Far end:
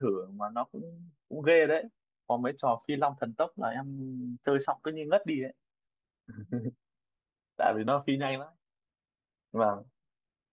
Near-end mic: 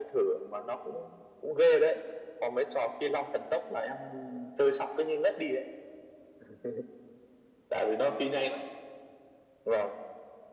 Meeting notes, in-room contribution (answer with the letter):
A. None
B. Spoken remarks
A